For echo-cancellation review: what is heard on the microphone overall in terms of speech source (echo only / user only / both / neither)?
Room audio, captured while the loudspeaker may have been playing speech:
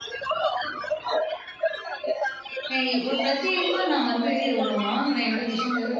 both